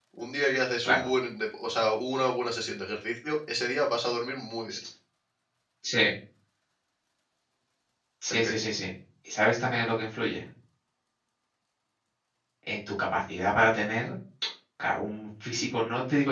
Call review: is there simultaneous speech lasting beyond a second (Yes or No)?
No